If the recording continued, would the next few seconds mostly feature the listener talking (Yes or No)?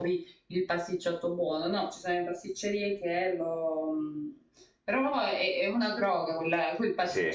Yes